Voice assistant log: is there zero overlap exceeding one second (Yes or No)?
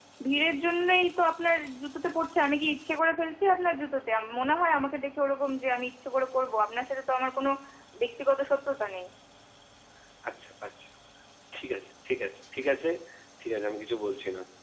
Yes